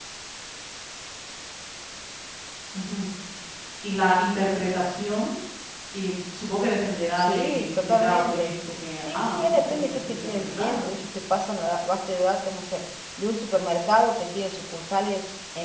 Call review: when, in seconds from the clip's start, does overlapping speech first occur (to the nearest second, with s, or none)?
7 s